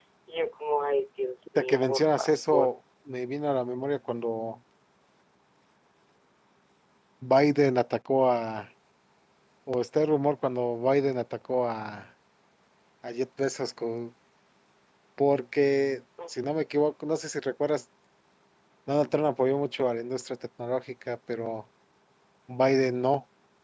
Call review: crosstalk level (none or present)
present